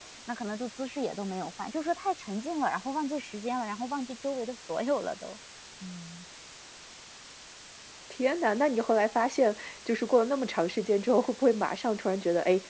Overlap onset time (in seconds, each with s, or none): none